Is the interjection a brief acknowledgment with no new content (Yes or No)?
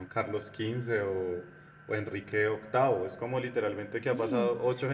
Yes